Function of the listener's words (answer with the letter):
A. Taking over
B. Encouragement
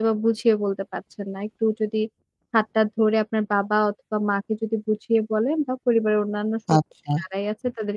B